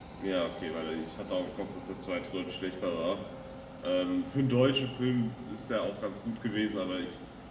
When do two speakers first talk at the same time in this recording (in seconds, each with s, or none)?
none